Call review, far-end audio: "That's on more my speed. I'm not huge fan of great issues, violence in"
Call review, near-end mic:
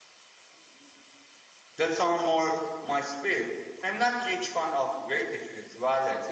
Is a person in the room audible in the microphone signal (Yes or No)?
No